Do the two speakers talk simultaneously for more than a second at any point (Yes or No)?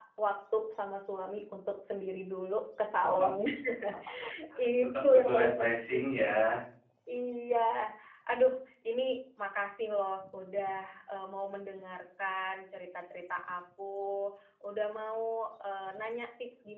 Yes